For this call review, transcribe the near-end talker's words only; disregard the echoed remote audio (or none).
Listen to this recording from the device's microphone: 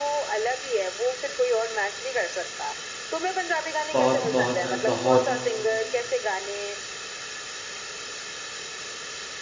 बहुत बहुत है बहुत